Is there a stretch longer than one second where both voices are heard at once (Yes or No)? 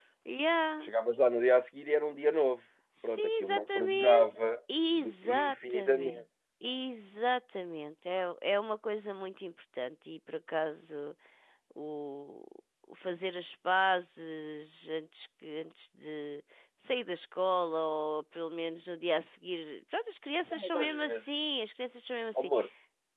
Yes